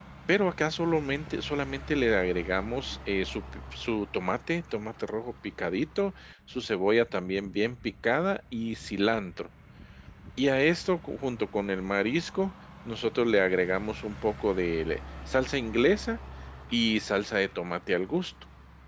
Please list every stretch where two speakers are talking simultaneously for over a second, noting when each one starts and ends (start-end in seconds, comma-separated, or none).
none